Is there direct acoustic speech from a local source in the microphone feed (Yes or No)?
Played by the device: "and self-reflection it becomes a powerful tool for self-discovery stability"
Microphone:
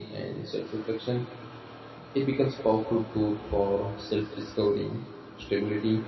No